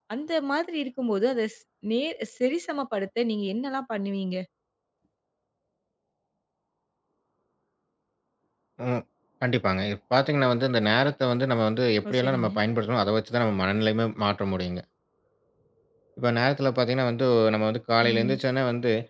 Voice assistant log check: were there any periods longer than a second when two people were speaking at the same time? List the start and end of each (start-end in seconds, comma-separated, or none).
none